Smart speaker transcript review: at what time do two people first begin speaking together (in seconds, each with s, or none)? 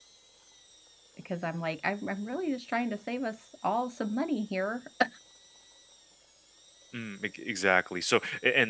none